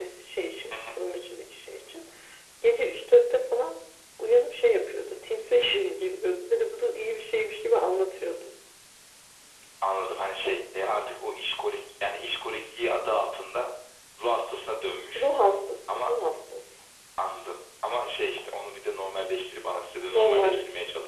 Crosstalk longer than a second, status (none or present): none